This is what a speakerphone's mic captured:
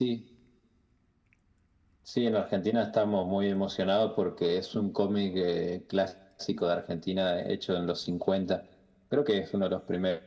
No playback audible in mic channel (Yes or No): No